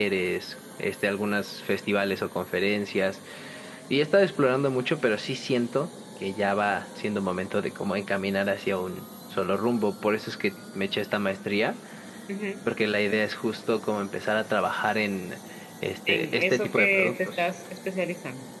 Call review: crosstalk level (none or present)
present